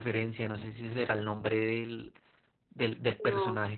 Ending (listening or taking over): listening